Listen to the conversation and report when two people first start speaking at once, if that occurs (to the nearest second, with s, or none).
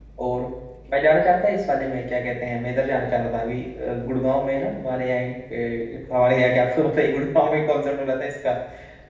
none